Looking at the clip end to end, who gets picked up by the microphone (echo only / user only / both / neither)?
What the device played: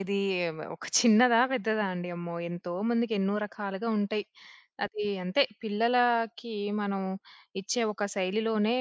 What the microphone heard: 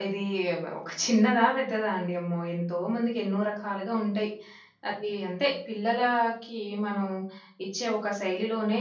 echo only